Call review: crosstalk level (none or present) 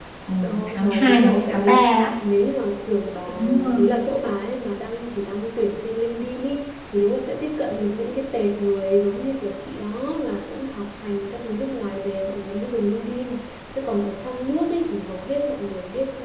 present